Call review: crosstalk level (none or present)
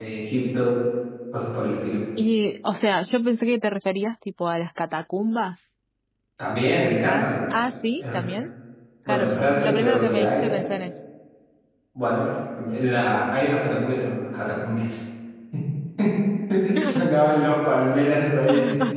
present